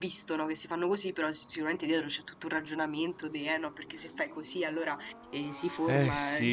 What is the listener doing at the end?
listening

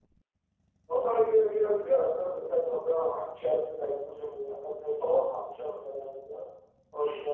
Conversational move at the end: listening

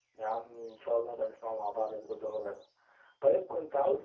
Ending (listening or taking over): listening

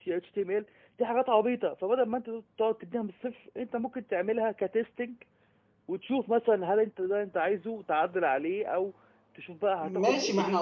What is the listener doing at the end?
taking over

